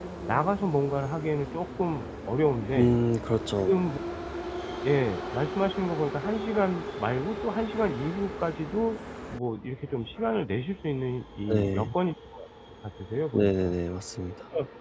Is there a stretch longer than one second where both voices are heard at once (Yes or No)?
No